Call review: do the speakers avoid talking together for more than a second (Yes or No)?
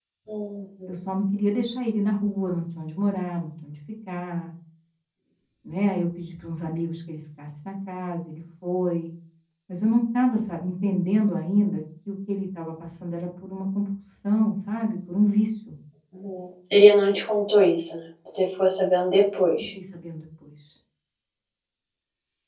Yes